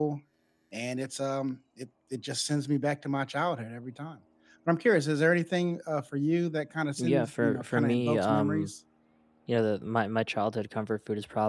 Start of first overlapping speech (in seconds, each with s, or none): 7.0 s